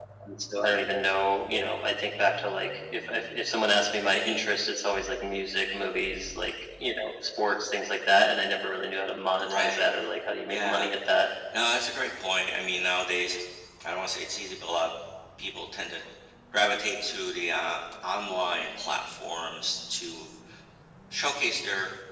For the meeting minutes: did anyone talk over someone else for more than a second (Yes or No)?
No